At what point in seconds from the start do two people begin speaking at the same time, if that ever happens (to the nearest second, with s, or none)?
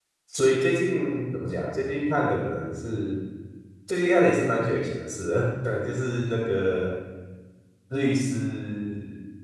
none